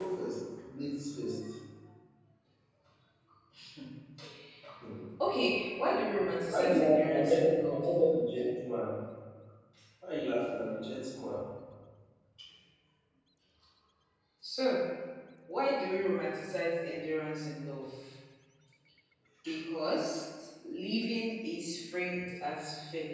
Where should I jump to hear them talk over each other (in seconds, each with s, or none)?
6.5 s